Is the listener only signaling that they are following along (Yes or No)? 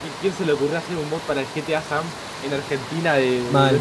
No